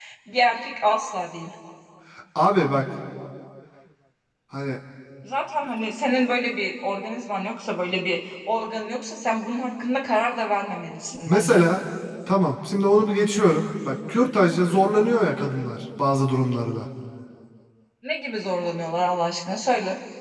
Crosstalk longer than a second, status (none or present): none